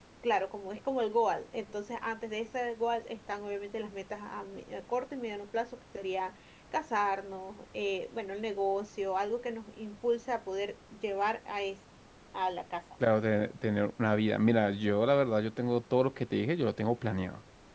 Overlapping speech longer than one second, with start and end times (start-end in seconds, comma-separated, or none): none